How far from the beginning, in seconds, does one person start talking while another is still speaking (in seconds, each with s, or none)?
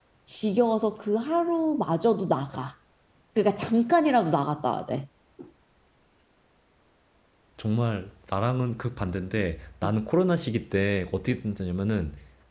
none